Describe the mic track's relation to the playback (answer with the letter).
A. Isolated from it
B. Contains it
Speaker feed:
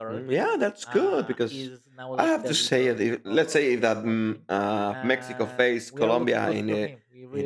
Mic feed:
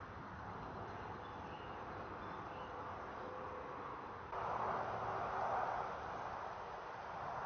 A